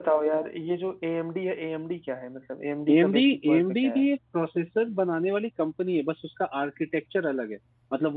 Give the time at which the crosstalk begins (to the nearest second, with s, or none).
3 s